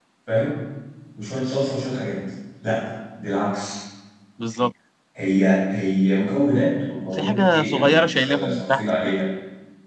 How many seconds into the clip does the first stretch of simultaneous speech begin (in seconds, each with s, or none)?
7.1 s